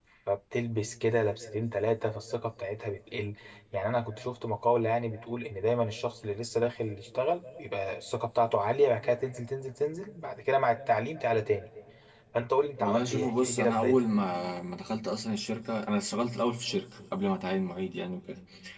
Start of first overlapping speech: 12.8 s

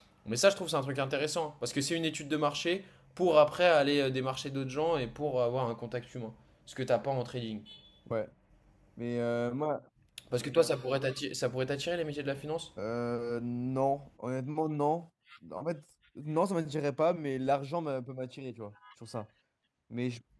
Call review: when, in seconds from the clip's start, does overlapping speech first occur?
none

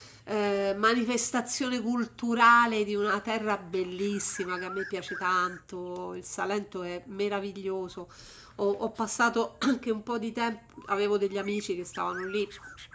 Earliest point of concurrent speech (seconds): none

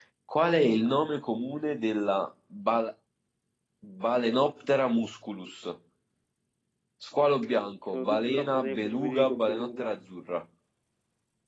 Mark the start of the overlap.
7.9 s

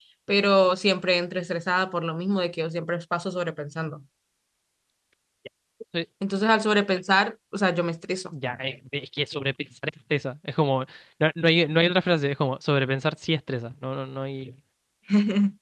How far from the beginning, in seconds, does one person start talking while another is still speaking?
none

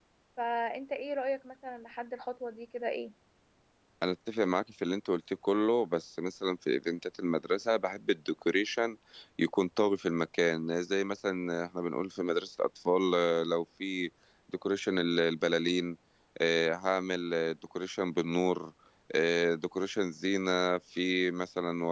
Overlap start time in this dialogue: none

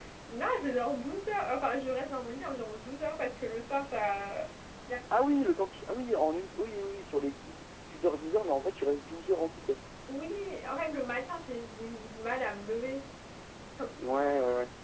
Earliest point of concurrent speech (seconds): none

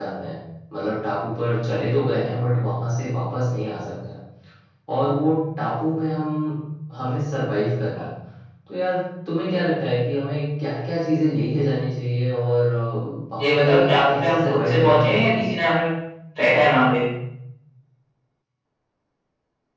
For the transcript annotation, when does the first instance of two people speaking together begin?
13.4 s

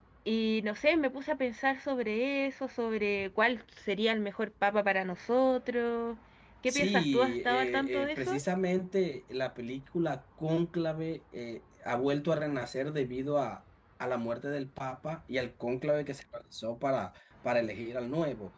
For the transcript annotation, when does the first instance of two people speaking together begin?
6.7 s

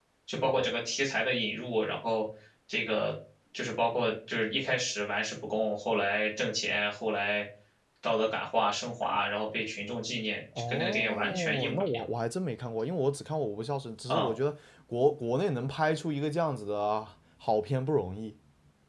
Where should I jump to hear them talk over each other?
10.6 s

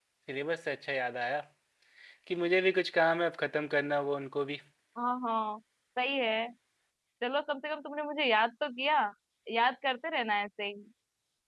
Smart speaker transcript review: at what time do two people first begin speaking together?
none

